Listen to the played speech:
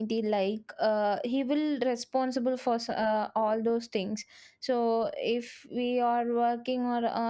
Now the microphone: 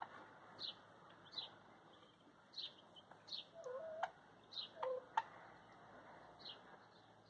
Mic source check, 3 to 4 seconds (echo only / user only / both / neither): neither